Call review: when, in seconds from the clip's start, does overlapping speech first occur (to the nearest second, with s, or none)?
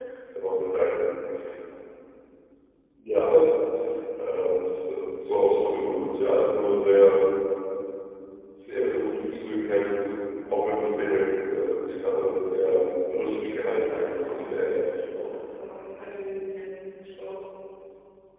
13 s